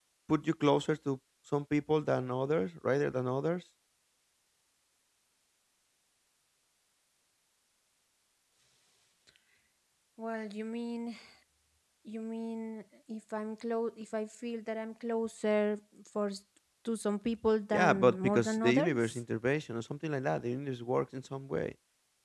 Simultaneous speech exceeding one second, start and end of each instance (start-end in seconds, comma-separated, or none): 17.7-19.2